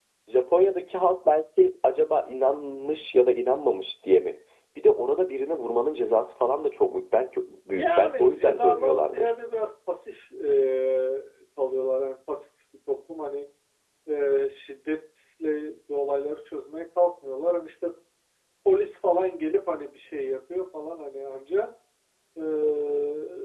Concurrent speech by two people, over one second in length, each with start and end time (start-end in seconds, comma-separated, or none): 7.7-9.3